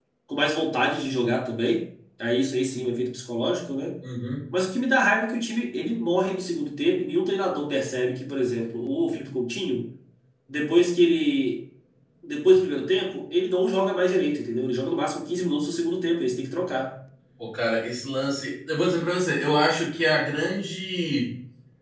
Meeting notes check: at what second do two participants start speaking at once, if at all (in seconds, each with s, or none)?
none